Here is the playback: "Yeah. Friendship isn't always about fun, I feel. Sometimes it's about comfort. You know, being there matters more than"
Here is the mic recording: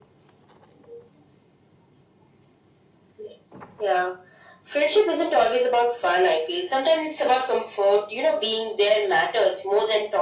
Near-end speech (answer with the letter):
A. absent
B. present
A